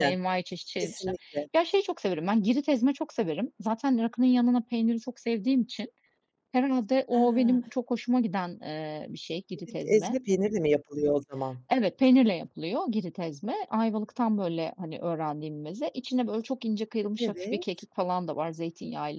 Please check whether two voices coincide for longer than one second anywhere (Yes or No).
No